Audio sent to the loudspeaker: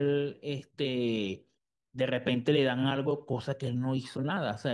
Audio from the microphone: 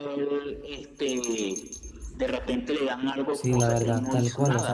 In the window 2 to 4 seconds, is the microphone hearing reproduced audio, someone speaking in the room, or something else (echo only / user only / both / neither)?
both